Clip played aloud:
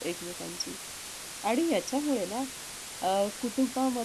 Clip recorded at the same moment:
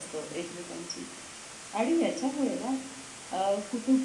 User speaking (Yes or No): No